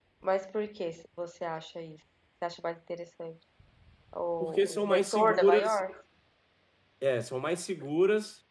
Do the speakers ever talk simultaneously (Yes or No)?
Yes